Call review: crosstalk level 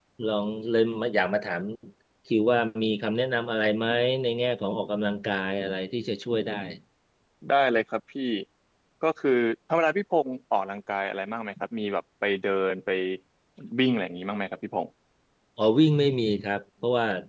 none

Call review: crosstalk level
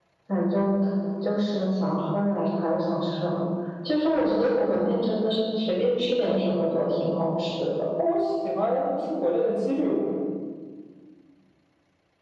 none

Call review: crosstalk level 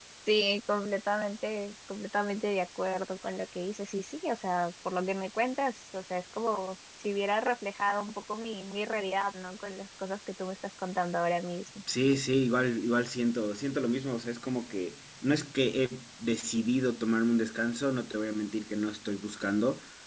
none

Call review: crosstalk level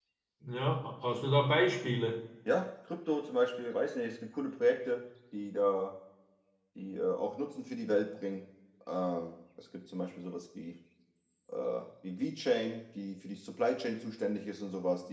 none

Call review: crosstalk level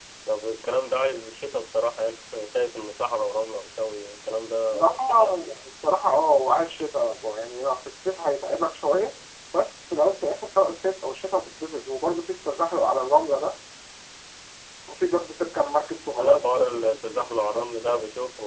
present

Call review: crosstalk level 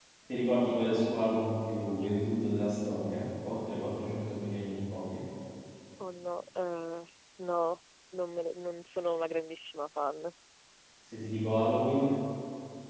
none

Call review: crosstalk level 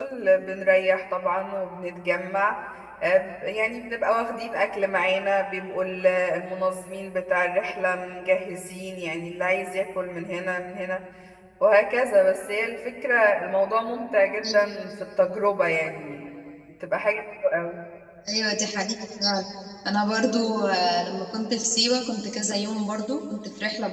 none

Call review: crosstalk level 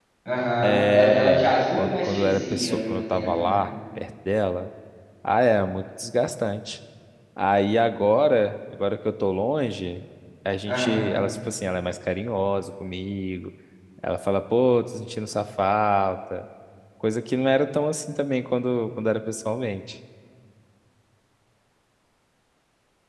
present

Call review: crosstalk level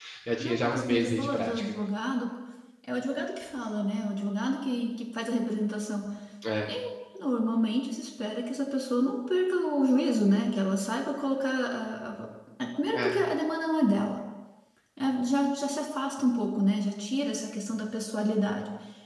present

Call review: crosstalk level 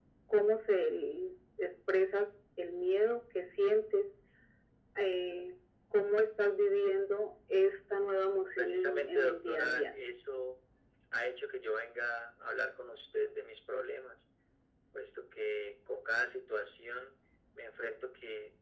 present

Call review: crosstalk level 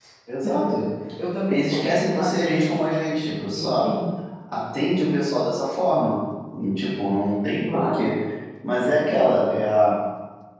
present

